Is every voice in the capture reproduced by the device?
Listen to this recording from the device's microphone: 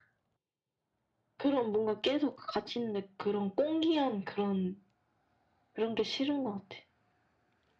Yes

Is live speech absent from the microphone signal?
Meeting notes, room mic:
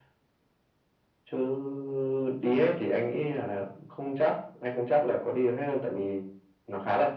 Yes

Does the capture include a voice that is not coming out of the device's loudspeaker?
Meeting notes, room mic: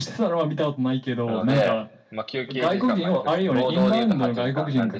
Yes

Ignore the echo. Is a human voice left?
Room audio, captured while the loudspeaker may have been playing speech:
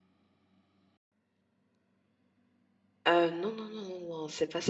Yes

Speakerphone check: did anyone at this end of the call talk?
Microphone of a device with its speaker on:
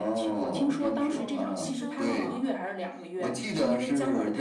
Yes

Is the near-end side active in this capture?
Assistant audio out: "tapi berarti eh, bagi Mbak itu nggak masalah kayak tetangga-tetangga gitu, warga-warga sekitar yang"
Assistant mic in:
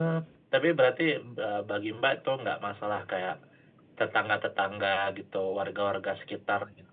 No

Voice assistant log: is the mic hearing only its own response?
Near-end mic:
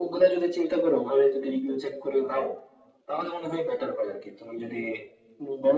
Yes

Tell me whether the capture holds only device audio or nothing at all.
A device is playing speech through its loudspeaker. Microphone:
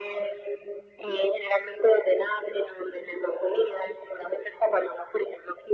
Yes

